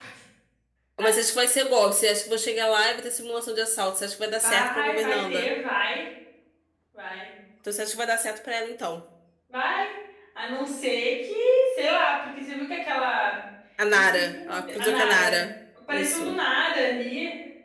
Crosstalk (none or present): present